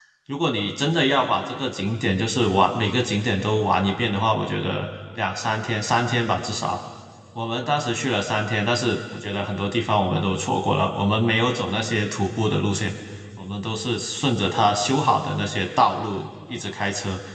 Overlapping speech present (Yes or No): No